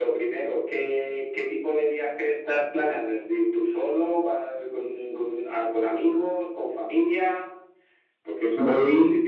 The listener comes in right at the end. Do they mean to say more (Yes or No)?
No